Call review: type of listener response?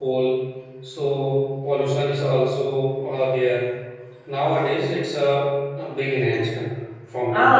taking over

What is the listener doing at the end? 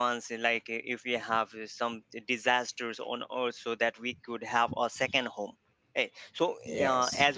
listening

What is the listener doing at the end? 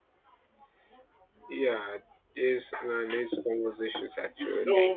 taking over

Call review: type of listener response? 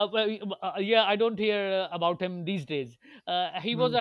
listening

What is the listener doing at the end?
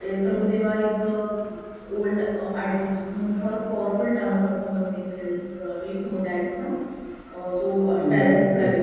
listening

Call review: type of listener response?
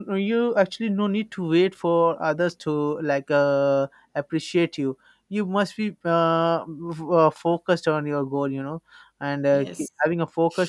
listening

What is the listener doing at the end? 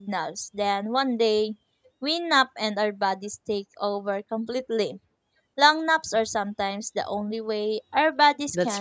taking over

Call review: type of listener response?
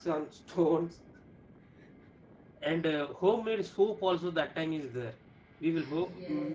listening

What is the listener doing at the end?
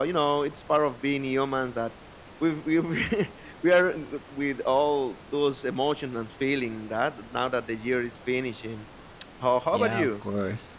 taking over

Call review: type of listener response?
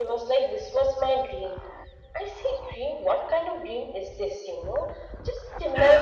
listening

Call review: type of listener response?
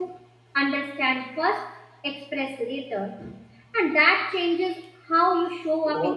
listening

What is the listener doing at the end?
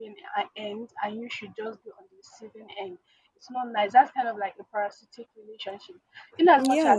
listening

